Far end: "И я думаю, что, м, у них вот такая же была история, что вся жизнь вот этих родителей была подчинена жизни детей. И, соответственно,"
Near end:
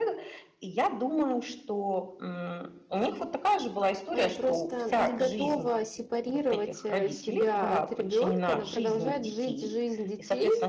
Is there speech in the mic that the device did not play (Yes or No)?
Yes